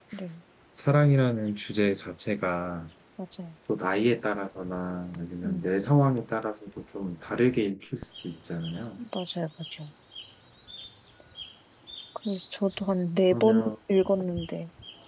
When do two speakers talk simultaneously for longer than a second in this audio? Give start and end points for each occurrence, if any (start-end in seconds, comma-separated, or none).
none